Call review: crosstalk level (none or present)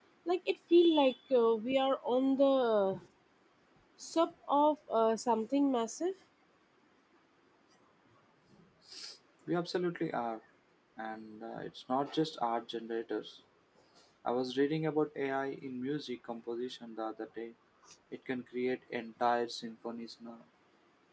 none